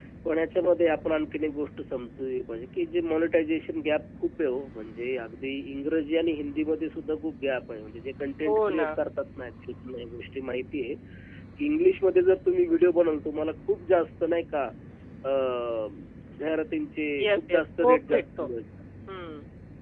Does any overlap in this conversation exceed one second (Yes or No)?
Yes